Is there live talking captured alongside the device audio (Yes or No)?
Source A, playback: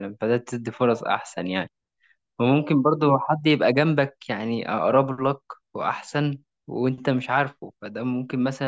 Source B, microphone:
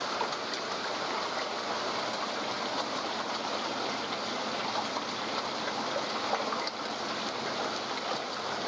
No